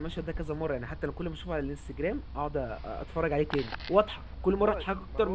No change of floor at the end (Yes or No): No